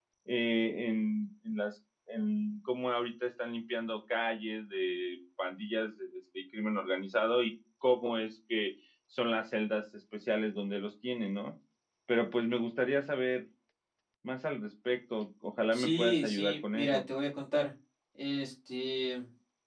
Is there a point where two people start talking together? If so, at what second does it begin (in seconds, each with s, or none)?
15.7 s